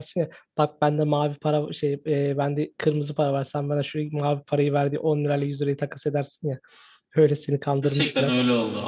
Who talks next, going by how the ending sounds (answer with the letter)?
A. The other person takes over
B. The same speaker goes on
A